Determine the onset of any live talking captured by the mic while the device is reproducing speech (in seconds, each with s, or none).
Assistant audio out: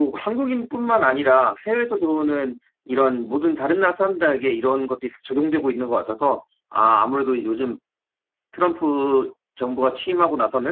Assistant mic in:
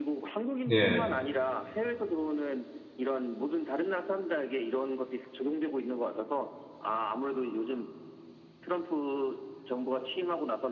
0.7 s